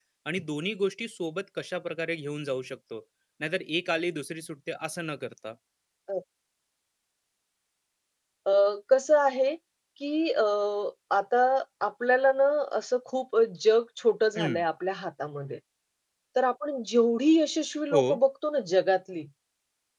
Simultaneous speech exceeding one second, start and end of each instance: none

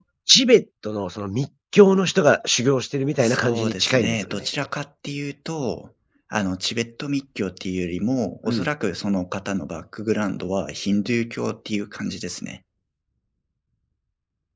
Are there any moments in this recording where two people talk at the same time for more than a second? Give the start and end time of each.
3.2-4.5

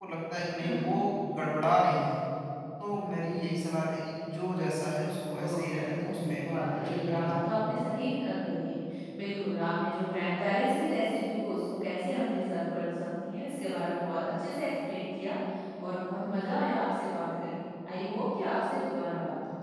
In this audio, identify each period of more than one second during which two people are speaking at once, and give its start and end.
5.4-7.3

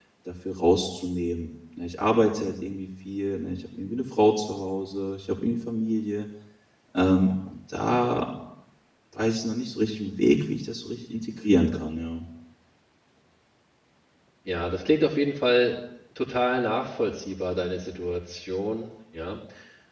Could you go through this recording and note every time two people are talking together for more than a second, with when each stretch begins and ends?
none

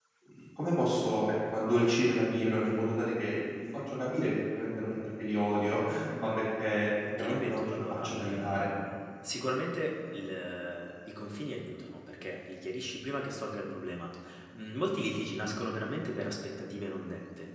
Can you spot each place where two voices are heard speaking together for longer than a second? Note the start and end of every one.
7.2-8.7

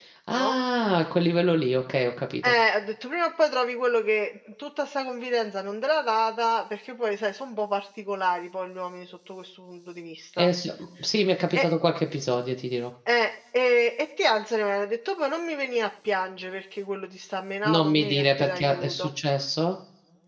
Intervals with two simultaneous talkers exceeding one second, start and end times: 17.7-19.1

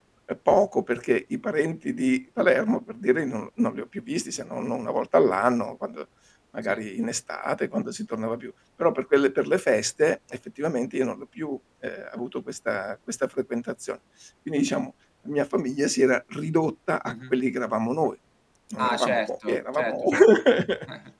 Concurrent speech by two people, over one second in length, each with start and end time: 18.8-20.0

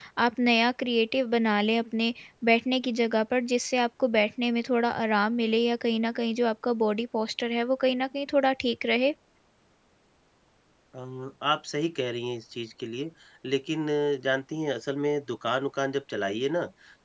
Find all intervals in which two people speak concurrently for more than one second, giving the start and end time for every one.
none

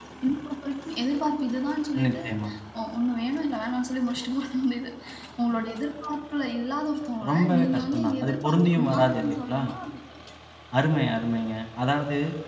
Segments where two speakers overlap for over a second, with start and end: 7.3-9.6

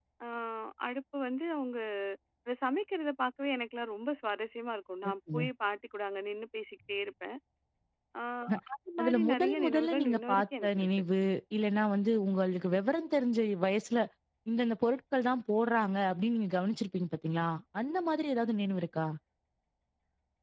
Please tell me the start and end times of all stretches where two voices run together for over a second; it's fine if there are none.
9.0-10.9

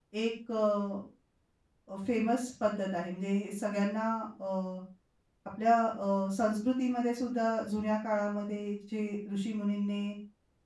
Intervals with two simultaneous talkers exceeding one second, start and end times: none

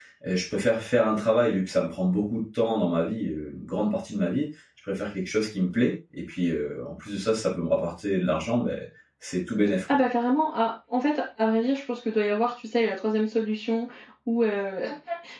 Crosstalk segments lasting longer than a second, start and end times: none

